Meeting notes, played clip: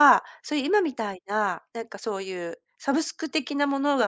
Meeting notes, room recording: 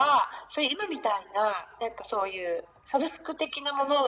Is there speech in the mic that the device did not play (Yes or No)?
No